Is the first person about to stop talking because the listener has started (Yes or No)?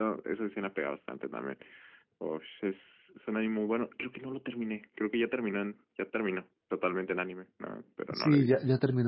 Yes